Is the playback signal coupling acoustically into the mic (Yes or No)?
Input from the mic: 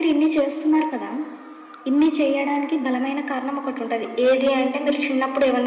Yes